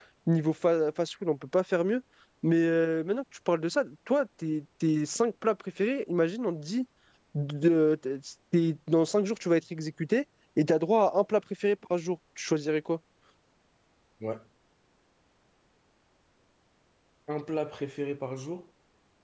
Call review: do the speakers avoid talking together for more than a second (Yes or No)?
Yes